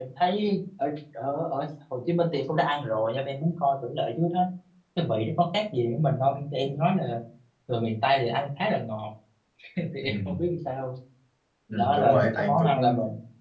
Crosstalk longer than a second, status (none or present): present